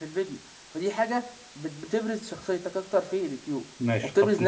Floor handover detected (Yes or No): Yes